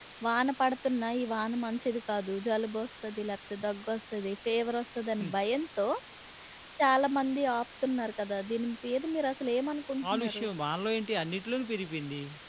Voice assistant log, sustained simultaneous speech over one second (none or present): none